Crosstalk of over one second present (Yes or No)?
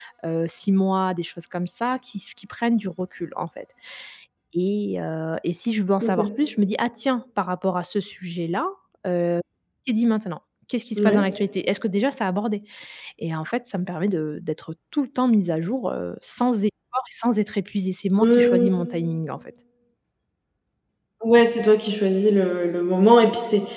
No